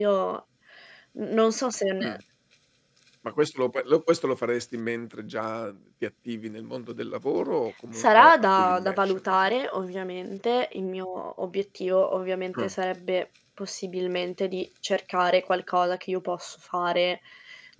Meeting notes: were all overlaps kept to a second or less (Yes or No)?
No